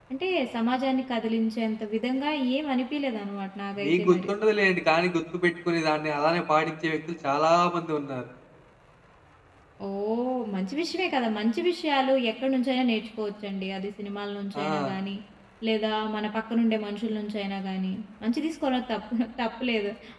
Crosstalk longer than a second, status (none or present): none